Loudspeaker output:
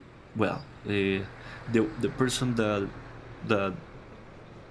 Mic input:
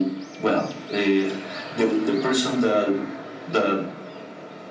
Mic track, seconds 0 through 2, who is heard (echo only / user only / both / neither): echo only